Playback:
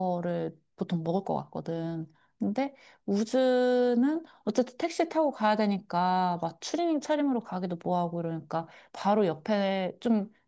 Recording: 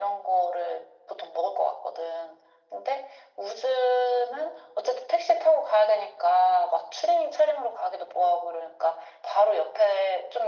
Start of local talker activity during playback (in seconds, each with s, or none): none